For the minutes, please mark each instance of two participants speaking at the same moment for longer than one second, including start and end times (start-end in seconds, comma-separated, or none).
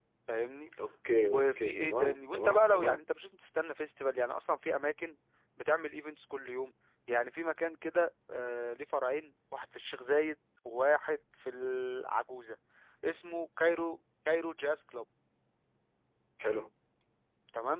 1.2-3.0